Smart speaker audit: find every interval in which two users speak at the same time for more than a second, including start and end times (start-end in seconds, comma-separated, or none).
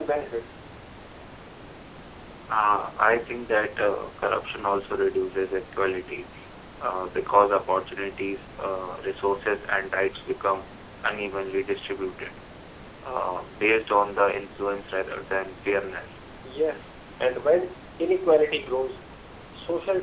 none